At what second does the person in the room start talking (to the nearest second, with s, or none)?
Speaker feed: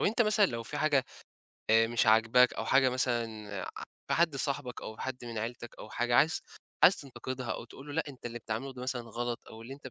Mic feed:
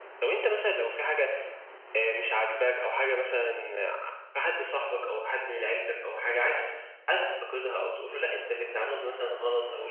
none